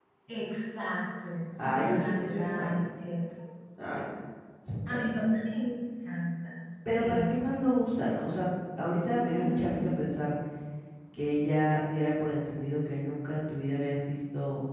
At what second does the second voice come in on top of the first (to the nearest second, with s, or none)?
2 s